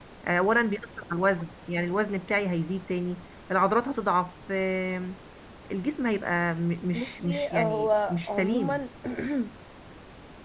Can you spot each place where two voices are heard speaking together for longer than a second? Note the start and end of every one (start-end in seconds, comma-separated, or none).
6.9-8.8